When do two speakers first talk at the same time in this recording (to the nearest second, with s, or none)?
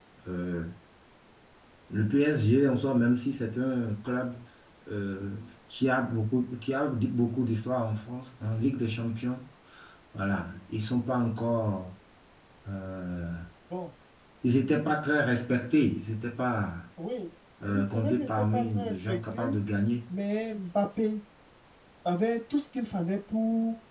18 s